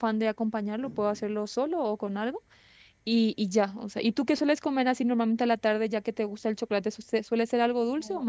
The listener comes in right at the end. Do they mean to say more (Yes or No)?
Yes